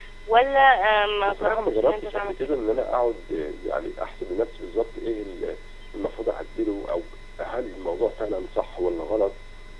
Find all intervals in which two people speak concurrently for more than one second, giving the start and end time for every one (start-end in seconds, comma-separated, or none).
1.3-2.6